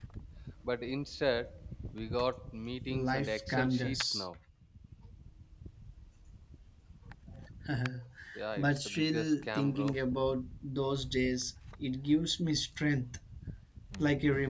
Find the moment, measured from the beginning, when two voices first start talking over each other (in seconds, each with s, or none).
2.9 s